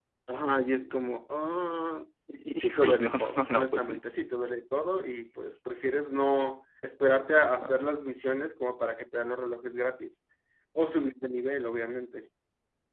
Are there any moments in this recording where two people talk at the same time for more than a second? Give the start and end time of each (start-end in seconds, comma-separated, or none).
2.6-4.0